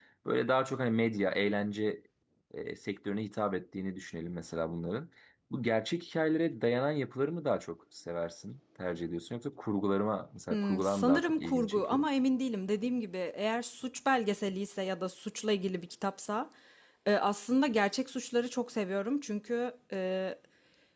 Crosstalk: present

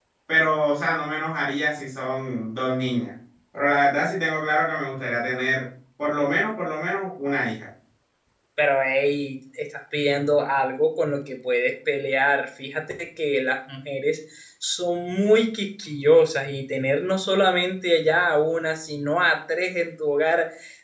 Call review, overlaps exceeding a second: none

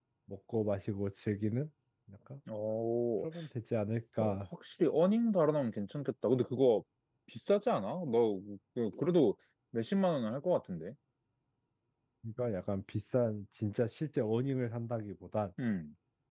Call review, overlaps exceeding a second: none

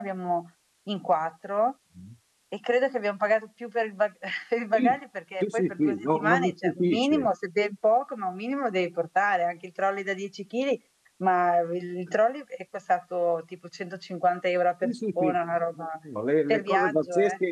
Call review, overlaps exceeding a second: present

